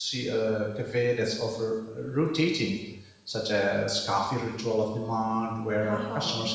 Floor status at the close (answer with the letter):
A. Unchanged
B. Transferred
A